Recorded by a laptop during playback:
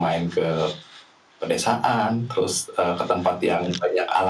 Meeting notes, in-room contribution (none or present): none